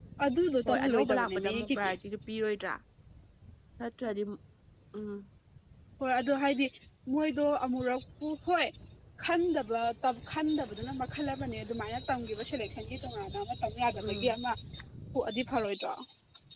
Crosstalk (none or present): present